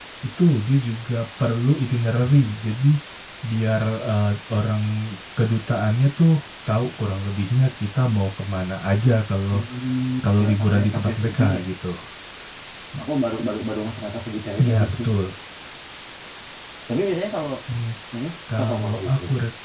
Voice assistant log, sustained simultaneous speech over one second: present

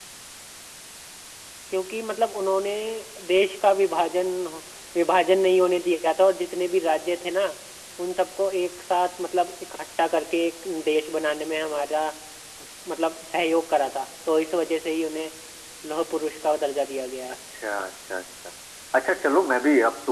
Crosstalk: none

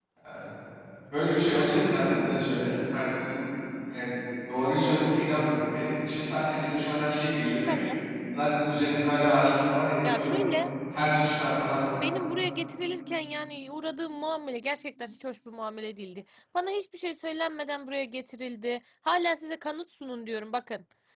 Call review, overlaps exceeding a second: none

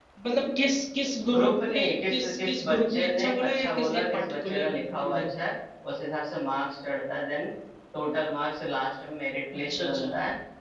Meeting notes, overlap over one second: present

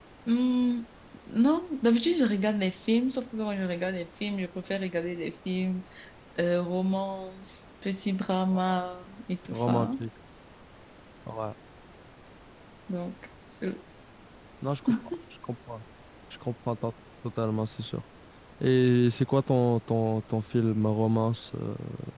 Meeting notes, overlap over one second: none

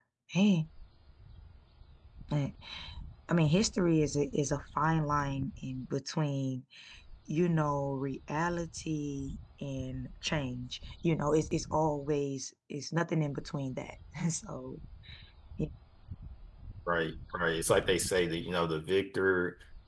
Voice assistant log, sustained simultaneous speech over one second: none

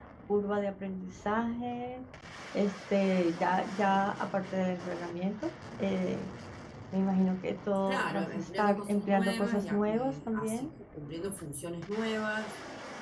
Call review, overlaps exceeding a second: present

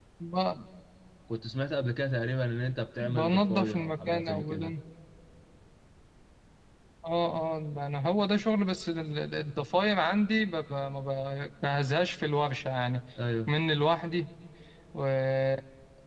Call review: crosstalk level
present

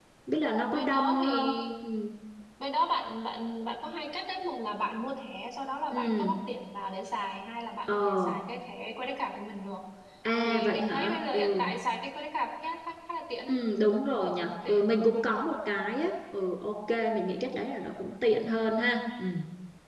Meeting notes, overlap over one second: present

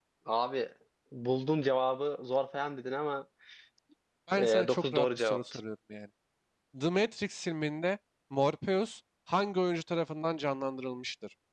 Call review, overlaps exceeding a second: present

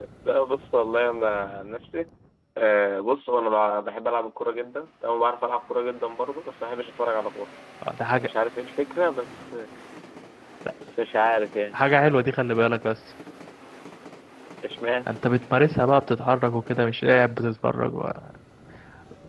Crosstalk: none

